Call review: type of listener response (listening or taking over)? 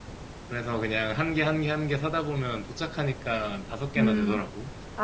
taking over